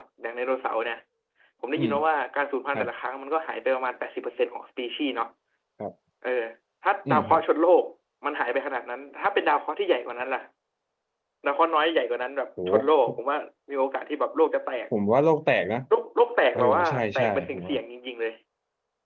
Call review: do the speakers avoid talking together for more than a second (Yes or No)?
No